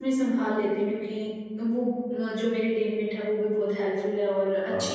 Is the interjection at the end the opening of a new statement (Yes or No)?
No